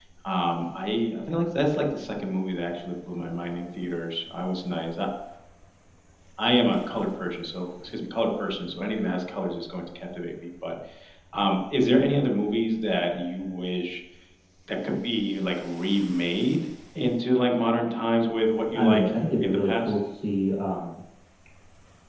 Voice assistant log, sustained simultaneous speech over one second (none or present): present